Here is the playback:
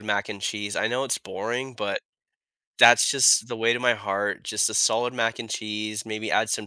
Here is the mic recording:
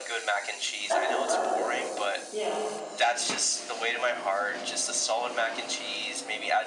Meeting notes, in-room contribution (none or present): present